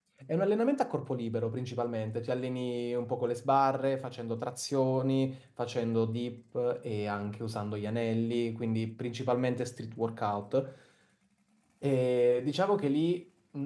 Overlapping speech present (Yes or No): No